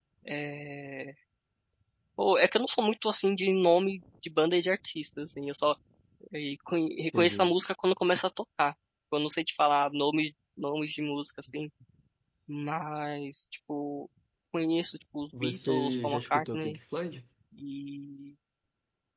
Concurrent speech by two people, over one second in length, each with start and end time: 15.4-16.8

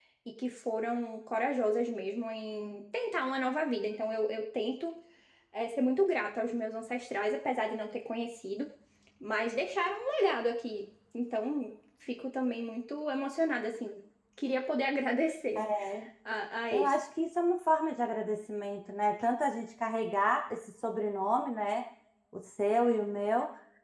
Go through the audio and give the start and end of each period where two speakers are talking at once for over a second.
none

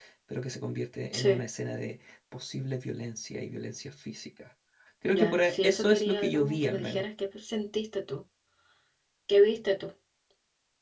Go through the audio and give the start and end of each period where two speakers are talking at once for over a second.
5.0-7.0

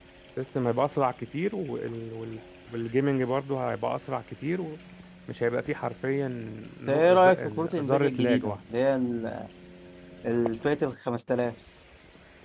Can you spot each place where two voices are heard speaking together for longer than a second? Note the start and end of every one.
6.9-8.6

